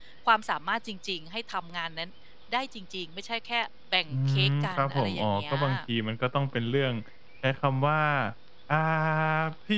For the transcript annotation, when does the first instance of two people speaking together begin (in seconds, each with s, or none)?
4.3 s